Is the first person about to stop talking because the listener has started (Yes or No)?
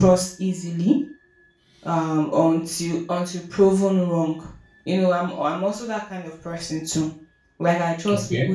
No